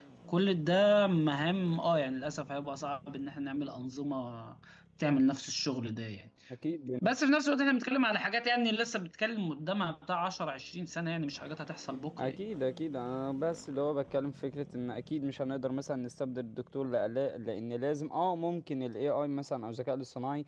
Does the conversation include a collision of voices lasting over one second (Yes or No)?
No